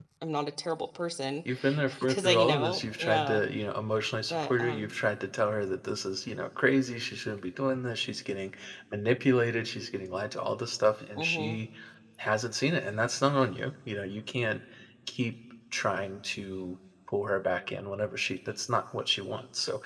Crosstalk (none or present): present